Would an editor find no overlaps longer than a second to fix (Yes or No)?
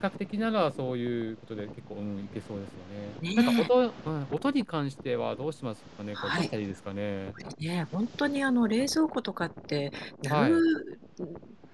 Yes